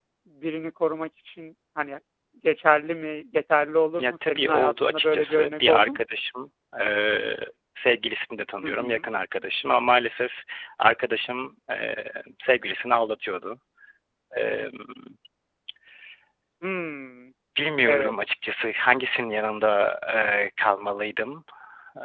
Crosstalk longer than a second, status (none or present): present